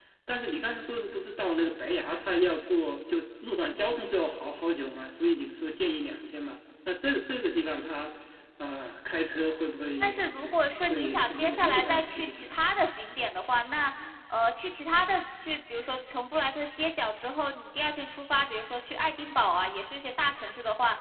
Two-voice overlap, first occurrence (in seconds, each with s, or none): 10.0 s